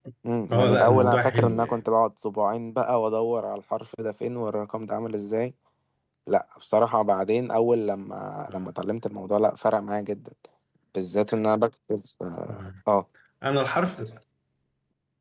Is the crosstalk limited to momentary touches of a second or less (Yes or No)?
No